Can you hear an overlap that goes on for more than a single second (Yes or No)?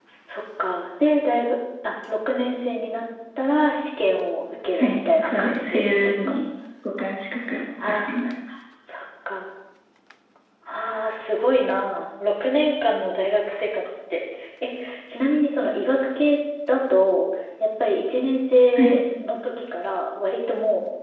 Yes